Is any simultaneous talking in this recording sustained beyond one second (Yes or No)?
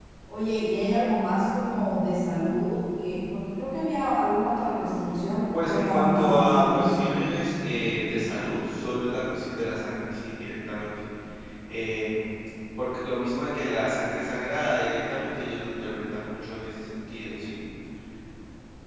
Yes